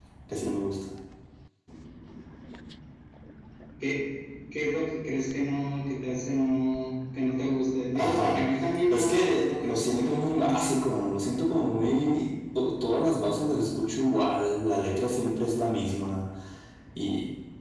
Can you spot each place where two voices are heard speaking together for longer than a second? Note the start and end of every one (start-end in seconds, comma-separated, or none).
8.9-10.7